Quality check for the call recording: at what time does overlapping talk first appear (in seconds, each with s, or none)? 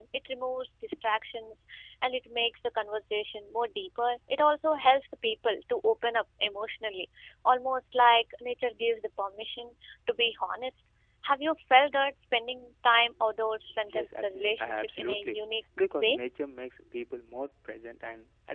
13.9 s